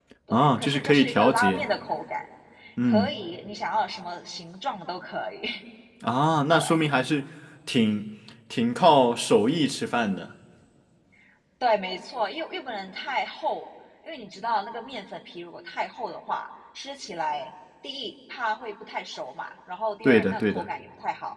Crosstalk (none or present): present